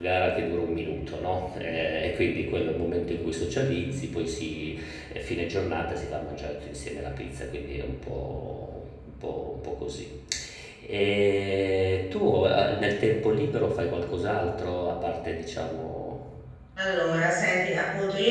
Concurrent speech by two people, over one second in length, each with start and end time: none

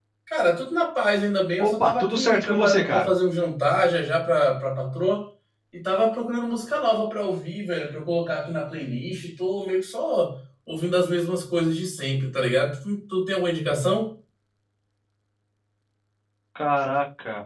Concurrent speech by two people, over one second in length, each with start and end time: 1.6-3.1

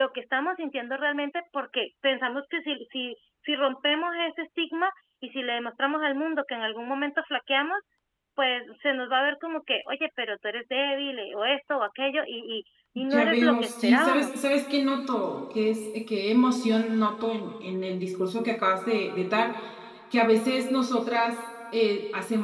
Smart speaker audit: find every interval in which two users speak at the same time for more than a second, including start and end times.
13.1-14.4

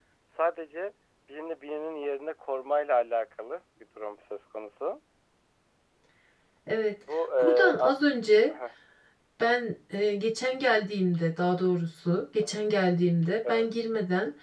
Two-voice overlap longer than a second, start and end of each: none

